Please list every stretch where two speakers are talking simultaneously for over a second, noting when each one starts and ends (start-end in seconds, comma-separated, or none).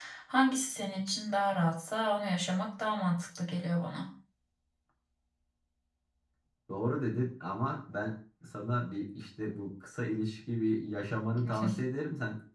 none